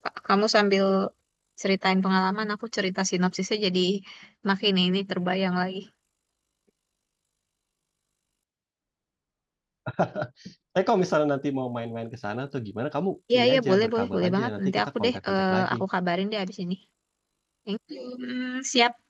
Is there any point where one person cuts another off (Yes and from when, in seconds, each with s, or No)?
Yes, from 13.3 s